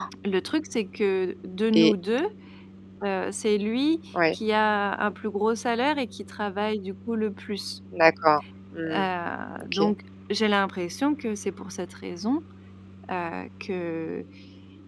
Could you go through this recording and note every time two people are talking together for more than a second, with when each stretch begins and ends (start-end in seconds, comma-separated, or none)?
none